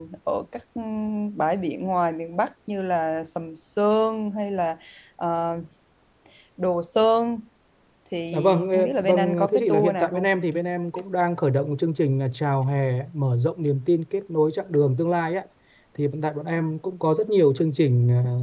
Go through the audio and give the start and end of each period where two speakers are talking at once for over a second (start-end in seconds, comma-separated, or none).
8.3-10.3